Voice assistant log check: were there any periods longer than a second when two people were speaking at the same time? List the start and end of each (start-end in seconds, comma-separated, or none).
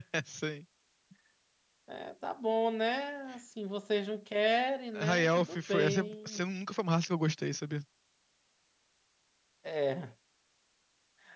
5.0-6.4